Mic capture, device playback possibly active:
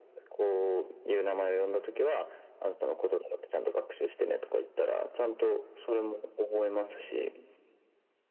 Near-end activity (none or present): none